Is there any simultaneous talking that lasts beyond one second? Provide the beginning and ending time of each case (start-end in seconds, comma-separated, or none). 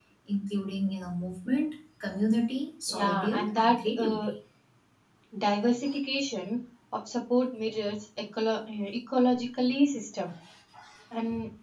2.9-4.3